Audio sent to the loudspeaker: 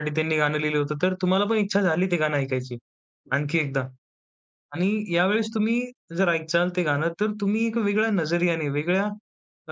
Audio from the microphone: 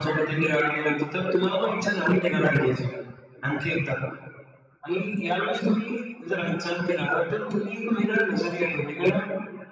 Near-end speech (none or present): none